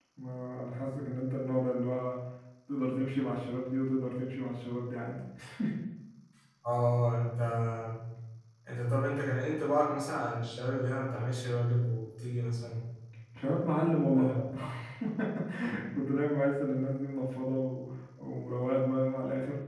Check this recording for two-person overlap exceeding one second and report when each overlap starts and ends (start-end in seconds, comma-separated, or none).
none